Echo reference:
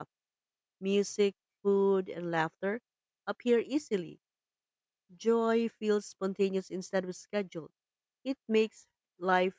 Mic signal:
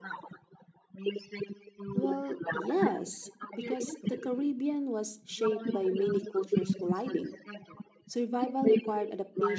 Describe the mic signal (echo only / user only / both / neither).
both